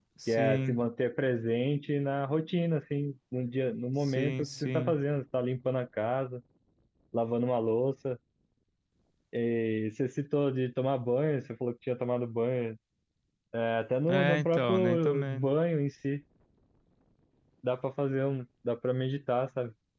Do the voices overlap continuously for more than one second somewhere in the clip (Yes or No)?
Yes